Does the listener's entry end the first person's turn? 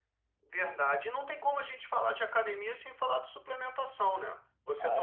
Yes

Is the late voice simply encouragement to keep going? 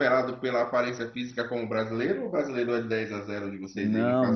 No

